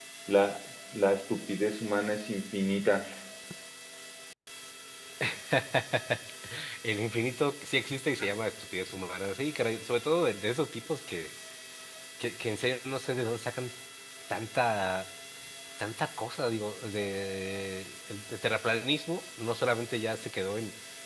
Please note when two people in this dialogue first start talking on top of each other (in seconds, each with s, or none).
none